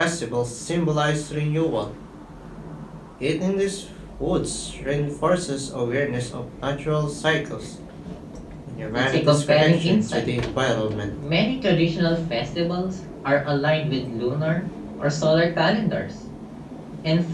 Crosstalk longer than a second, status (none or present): present